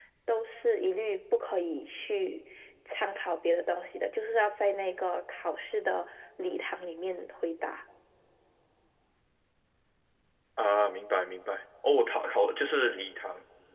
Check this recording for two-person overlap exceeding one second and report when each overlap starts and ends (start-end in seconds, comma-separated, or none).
none